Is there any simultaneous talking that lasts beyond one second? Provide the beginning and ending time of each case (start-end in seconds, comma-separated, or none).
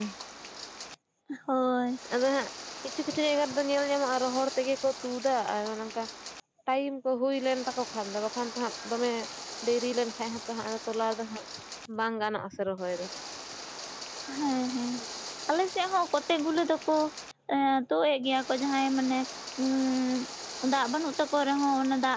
none